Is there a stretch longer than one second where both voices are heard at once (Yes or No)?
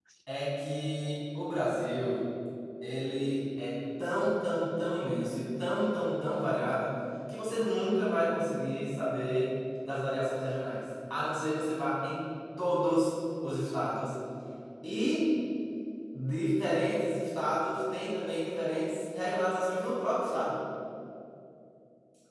No